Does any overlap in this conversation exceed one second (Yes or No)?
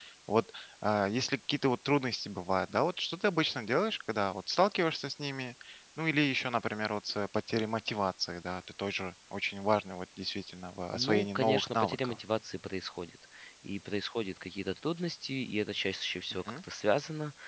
Yes